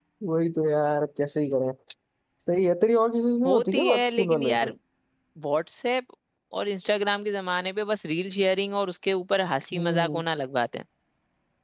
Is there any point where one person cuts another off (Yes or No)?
Yes